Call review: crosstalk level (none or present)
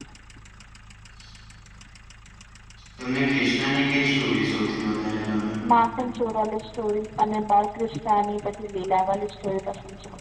none